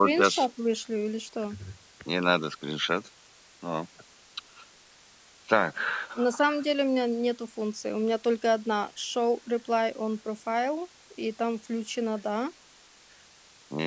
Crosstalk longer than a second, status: none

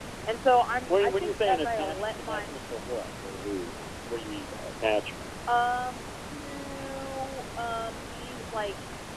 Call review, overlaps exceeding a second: present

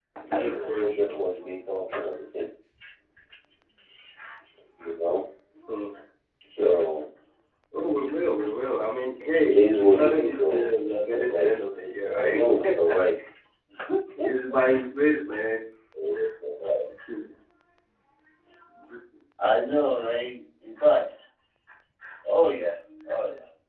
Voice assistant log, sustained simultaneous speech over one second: present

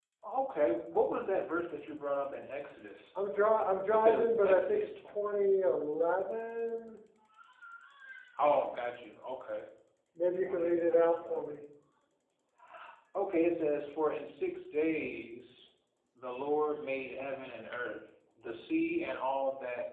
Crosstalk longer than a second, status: present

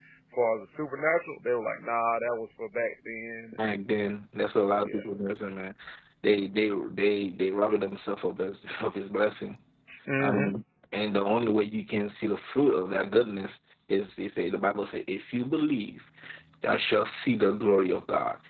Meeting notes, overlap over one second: none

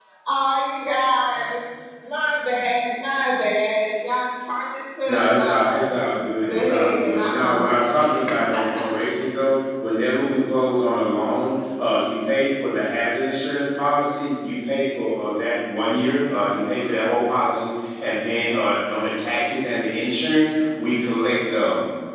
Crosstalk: present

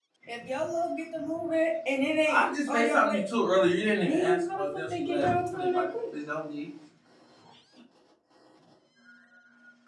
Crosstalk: present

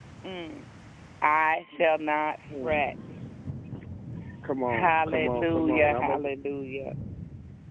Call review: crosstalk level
present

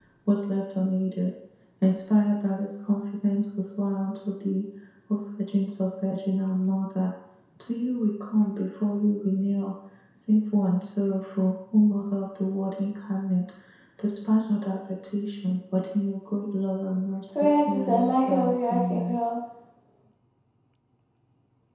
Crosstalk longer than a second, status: present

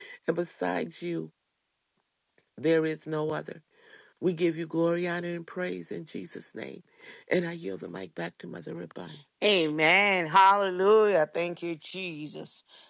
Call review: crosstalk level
none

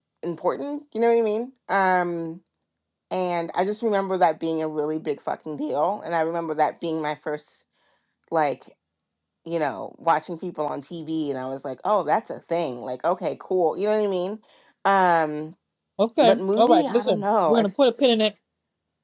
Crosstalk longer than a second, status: present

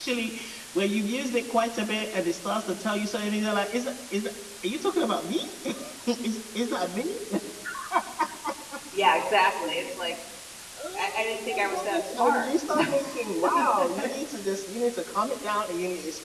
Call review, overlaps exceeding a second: present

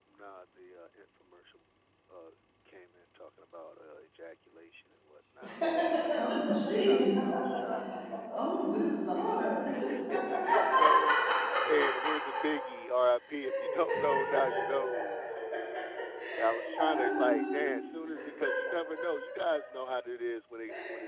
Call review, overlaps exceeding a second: present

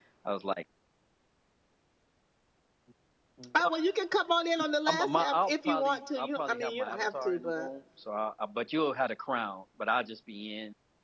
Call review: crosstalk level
present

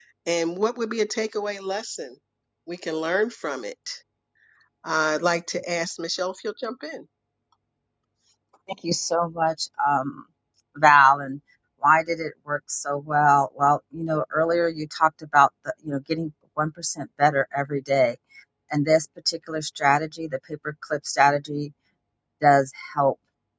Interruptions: none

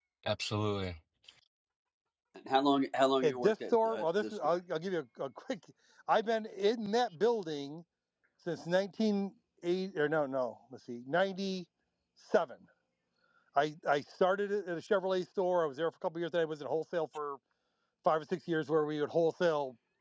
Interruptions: present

